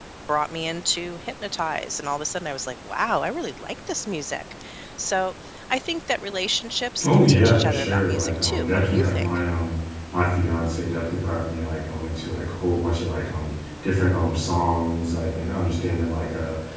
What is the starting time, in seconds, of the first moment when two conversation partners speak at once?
7.0 s

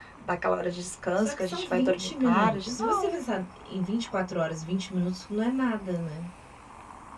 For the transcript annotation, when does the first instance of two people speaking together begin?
1.2 s

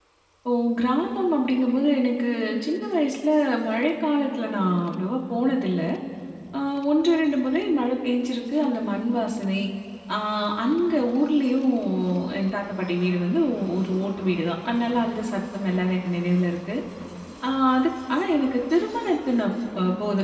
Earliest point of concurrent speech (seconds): none

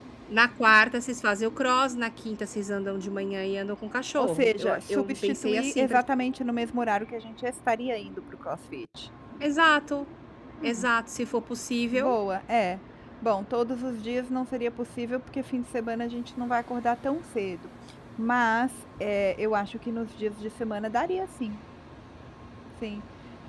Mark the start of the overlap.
4.2 s

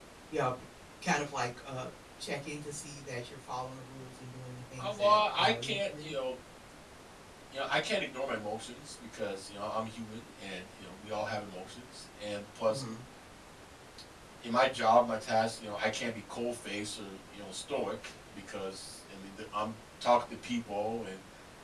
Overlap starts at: 4.8 s

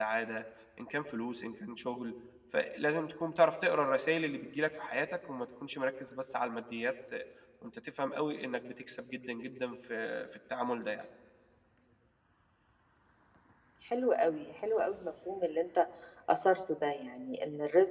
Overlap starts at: none

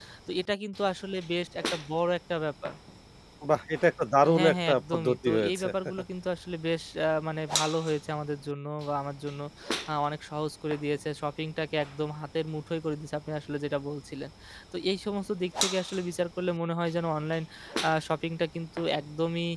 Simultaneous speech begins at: 4.3 s

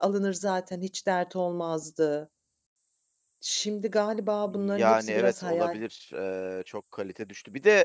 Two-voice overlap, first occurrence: 4.5 s

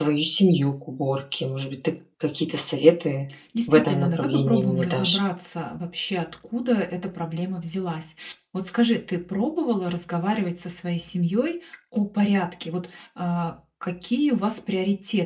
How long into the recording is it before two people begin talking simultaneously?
3.7 s

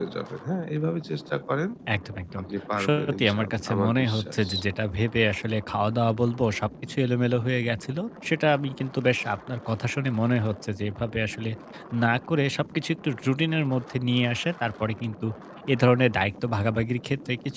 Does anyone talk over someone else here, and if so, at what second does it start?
2.8 s

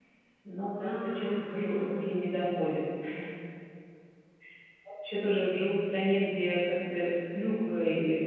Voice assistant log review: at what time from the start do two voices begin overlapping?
0.8 s

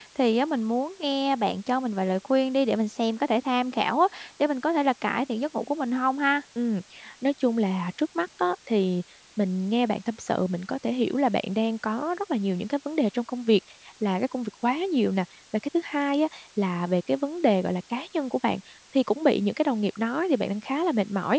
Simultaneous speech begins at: none

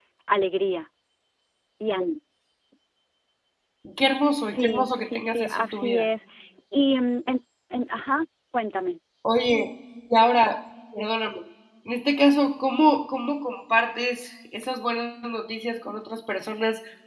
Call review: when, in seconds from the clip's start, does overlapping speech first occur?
4.4 s

